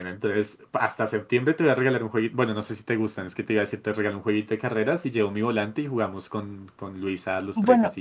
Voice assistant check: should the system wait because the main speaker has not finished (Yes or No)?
No